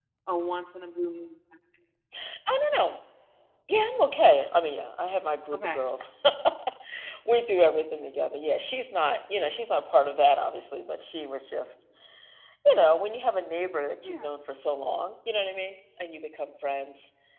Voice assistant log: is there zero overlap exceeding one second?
Yes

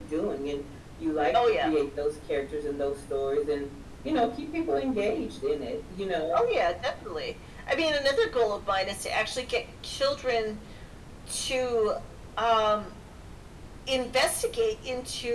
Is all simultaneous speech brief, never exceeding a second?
Yes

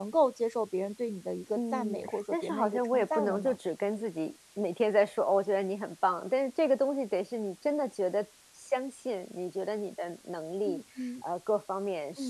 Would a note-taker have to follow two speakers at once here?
Yes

